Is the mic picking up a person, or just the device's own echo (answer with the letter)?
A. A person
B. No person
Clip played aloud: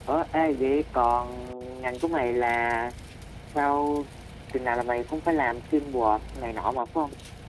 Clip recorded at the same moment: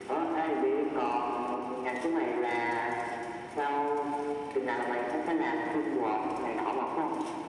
B